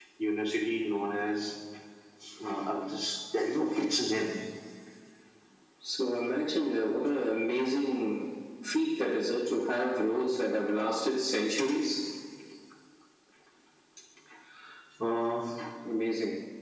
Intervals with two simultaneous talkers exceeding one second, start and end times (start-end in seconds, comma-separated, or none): none